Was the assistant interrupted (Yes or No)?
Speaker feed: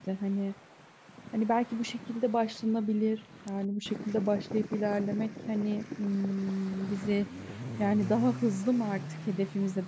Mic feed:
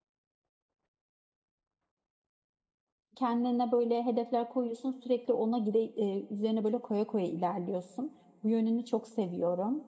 Yes